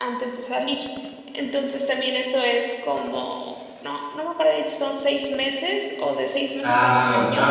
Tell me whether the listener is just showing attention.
No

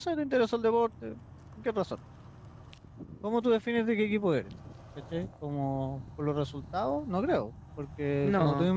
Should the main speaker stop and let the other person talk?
No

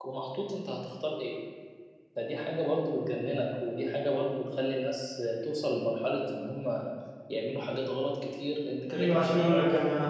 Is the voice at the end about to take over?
Yes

